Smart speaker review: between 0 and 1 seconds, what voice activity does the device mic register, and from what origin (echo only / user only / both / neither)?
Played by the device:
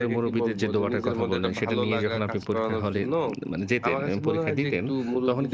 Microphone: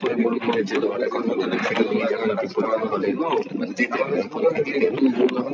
echo only